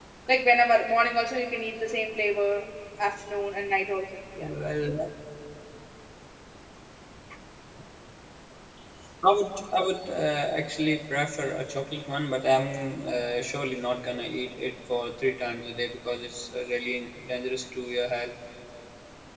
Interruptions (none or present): none